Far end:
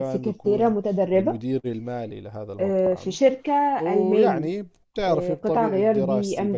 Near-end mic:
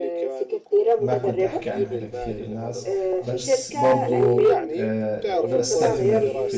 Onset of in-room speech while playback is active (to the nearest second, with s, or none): 1 s